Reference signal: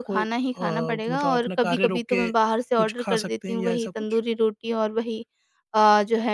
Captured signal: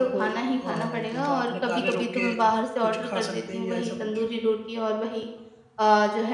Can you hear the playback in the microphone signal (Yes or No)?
Yes